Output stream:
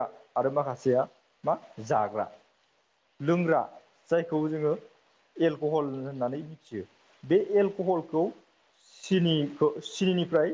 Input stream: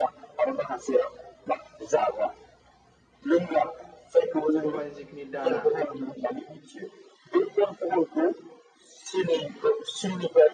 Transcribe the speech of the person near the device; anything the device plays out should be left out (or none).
सबायनि जिखिनि दाना